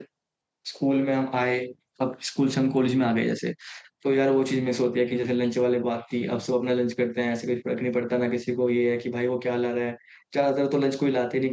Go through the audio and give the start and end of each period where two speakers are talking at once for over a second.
none

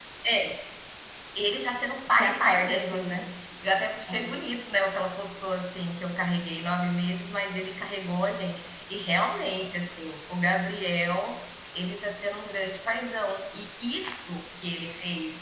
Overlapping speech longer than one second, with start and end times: 2.1-3.3

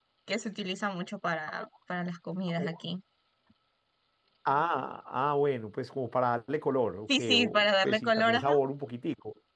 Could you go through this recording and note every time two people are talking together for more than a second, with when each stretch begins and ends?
7.1-8.5

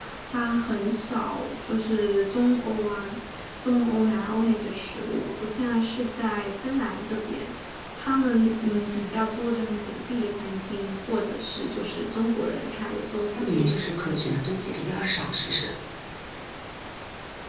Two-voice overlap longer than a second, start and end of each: none

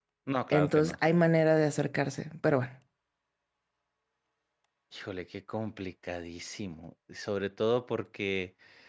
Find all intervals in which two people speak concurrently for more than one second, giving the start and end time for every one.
none

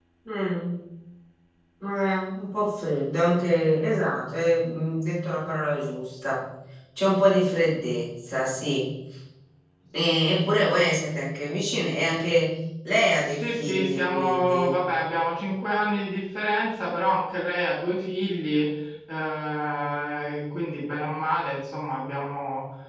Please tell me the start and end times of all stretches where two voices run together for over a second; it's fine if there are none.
13.4-14.7

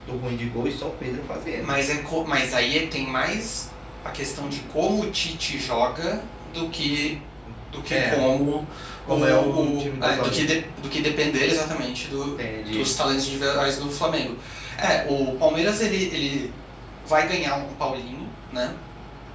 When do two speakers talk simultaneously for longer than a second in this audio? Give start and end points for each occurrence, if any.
9.1-10.5

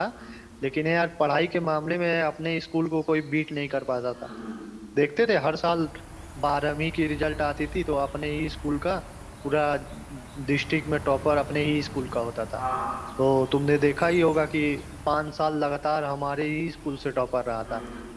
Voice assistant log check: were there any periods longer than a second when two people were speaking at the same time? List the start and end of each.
none

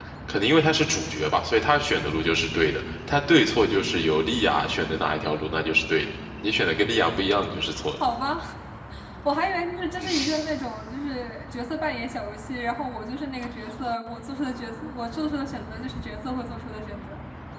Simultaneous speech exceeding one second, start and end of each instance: none

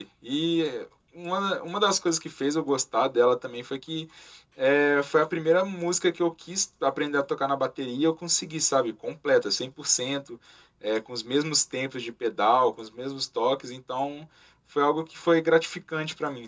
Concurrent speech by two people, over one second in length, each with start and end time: none

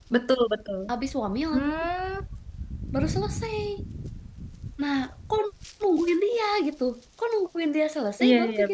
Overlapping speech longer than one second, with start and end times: none

